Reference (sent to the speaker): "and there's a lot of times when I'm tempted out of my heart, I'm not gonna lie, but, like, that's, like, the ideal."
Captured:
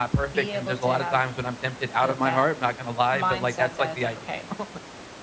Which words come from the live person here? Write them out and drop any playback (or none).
be able to have the, that mindset that it's like, okay,